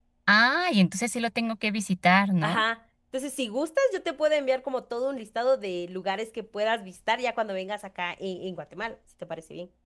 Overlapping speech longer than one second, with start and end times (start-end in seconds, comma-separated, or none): none